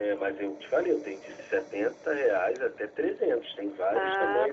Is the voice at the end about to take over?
Yes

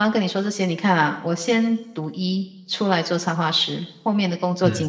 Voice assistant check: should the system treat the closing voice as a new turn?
No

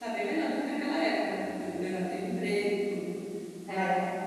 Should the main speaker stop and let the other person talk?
No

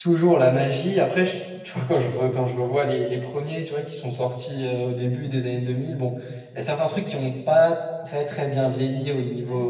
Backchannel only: Yes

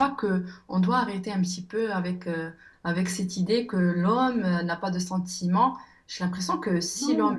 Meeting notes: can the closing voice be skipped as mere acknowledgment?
No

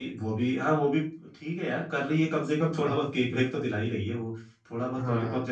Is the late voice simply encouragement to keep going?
No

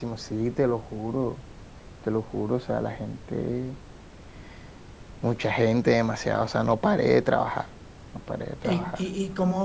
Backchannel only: No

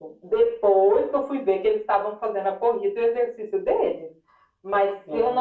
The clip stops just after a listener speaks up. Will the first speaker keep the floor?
Yes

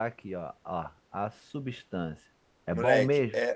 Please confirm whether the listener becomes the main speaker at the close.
Yes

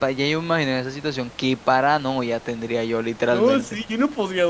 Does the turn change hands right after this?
Yes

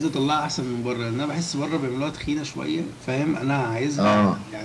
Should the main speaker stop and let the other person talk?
No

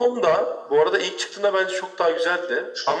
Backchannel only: Yes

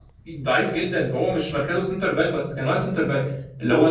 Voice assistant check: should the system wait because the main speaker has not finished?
No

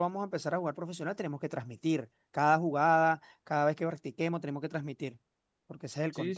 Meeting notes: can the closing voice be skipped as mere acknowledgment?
No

